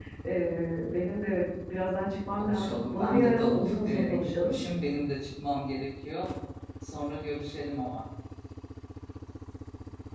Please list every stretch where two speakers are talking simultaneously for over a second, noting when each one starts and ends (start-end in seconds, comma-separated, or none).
2.4-4.6